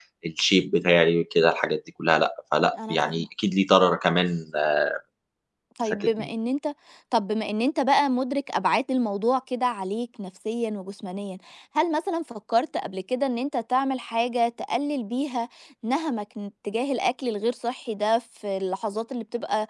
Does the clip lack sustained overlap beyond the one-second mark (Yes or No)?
Yes